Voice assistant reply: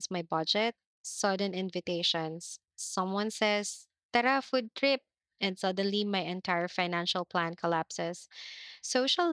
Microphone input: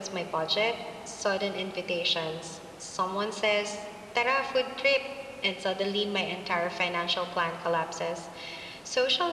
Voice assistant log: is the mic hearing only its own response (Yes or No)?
Yes